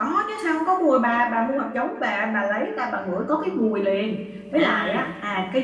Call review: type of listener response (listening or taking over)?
listening